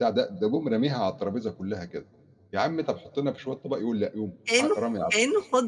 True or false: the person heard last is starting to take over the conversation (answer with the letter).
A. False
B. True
B